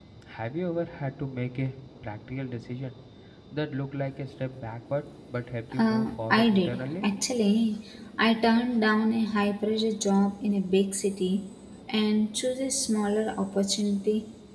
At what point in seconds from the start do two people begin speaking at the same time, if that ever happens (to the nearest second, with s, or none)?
6 s